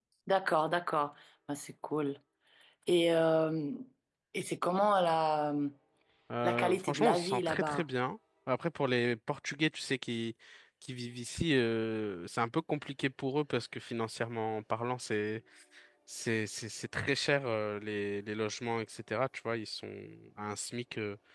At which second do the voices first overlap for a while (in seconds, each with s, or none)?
6.4 s